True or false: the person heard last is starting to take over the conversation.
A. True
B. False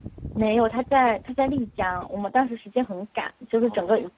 B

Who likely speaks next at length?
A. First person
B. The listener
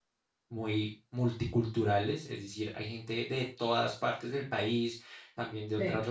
A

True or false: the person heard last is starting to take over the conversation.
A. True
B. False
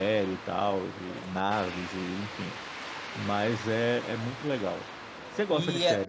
A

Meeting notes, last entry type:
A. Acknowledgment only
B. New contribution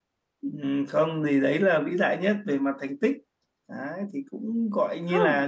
A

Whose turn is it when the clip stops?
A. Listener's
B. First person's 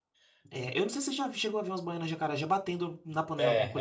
A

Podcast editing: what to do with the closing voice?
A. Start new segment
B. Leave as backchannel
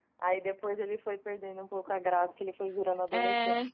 A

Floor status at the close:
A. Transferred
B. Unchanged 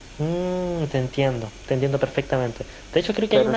B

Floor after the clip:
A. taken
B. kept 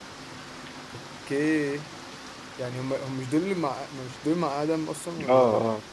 A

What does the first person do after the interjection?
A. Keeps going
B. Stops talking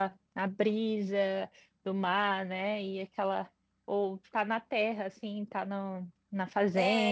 B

